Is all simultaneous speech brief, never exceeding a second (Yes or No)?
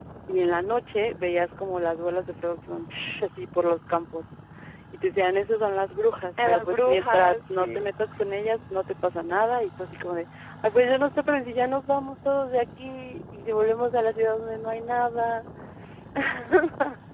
No